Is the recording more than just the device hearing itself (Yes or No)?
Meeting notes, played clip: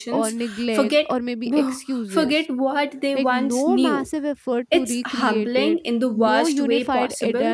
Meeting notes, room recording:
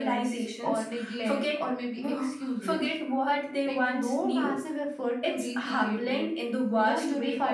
No